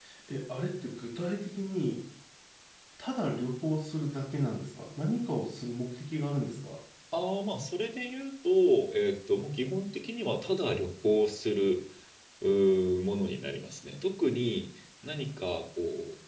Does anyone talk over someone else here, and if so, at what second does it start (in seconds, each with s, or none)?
none